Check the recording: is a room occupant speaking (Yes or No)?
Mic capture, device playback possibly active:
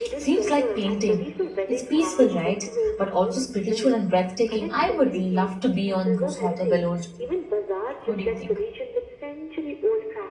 Yes